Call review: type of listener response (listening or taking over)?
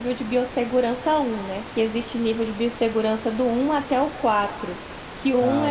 listening